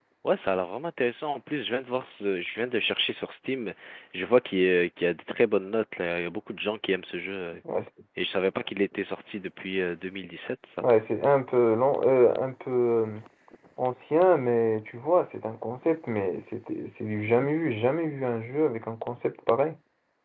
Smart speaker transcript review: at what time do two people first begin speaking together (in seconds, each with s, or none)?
none